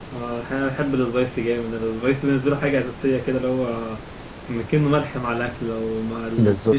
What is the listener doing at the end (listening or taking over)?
taking over